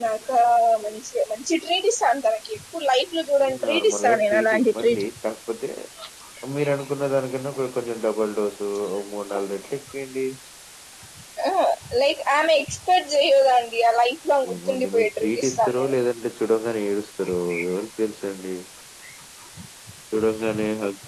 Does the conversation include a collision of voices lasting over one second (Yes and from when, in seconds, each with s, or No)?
Yes, from 3.6 s